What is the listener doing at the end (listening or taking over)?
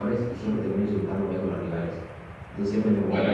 listening